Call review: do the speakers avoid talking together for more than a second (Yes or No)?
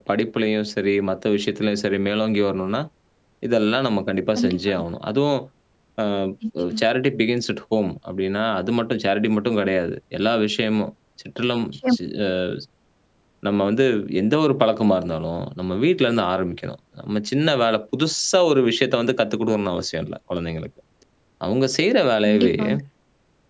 Yes